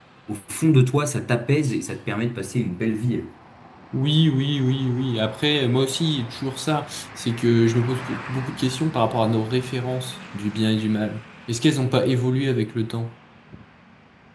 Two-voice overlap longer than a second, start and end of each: none

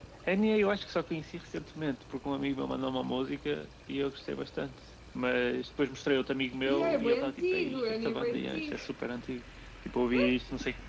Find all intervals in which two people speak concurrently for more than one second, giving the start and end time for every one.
6.7-8.8

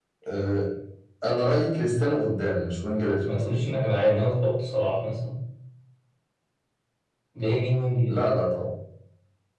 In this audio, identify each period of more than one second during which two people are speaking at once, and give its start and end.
none

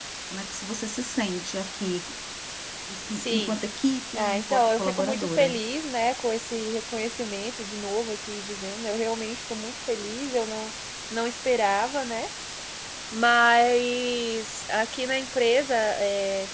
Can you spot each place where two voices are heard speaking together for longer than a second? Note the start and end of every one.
4.2-5.5

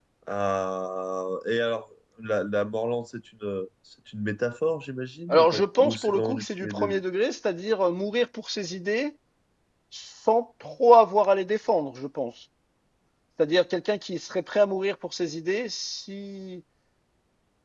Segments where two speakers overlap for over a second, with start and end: 5.3-7.0

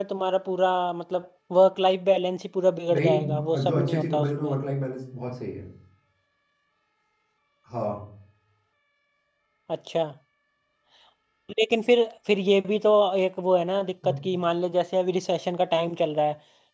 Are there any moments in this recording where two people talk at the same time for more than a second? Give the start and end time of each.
2.9-4.5

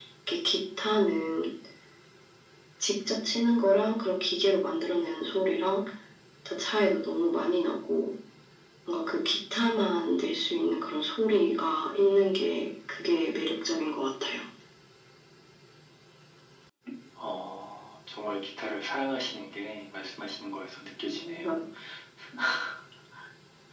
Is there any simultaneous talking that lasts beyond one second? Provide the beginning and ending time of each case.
none

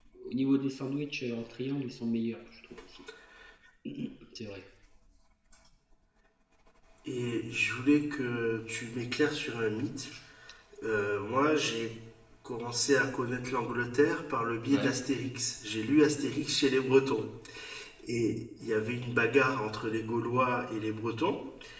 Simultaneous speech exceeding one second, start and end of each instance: none

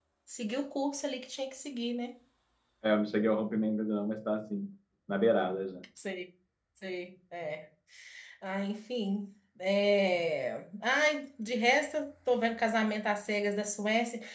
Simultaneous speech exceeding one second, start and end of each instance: none

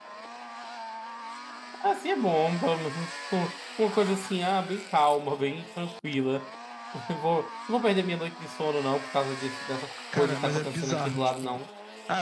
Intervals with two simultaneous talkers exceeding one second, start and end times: 10.1-11.6

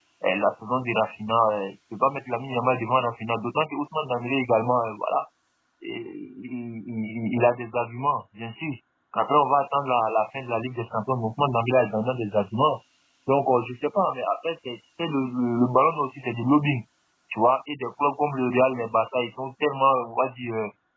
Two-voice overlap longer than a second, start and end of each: none

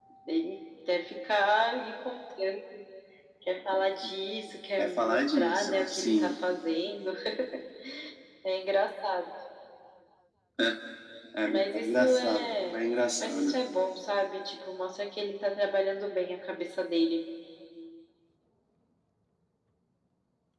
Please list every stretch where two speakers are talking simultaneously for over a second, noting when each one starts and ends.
4.8-6.3, 11.4-12.8

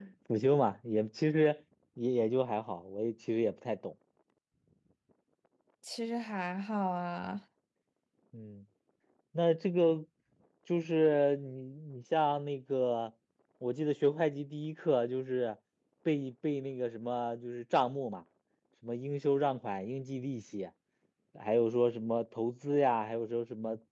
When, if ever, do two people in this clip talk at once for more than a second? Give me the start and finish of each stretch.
none

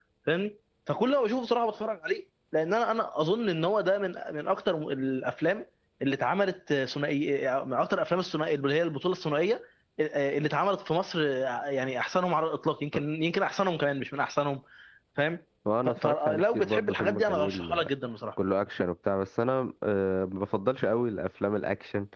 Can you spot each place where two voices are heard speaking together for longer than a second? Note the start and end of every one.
15.8-17.9

